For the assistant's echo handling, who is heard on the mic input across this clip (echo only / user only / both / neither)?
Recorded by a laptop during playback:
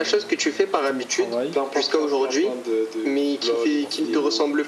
both